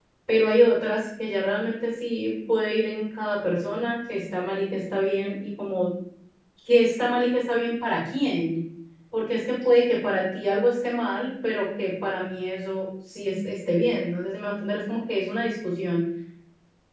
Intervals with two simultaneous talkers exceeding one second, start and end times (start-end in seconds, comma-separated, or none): none